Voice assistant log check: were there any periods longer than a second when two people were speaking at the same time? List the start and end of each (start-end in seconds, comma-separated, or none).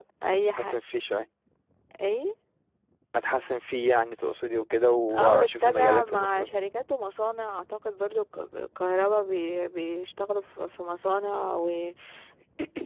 5.2-6.5